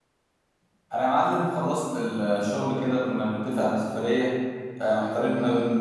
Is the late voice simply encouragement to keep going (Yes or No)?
Yes